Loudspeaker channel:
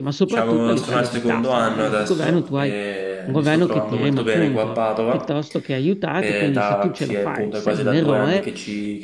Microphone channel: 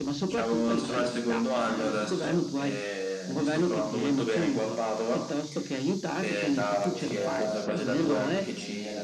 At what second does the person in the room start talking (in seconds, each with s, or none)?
6.6 s